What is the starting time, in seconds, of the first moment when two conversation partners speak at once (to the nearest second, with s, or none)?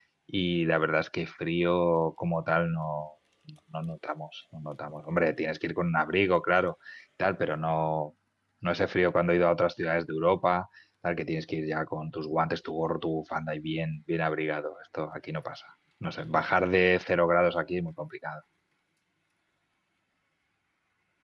none